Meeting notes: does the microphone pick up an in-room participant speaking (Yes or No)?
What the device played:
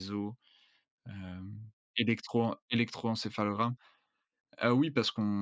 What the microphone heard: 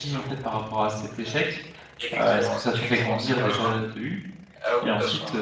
Yes